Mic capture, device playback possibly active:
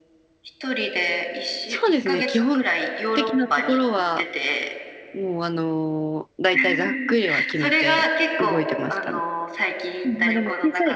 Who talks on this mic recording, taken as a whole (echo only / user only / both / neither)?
both